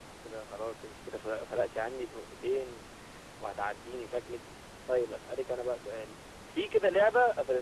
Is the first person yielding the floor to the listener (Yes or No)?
No